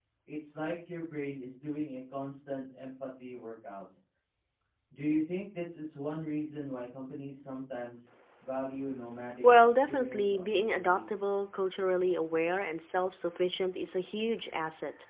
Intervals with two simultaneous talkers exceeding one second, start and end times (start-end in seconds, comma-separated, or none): 9.4-11.0